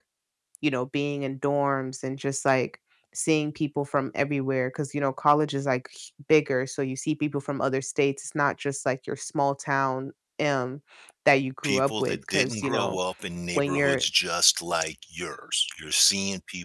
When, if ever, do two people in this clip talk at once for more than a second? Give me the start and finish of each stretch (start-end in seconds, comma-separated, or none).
11.6-13.0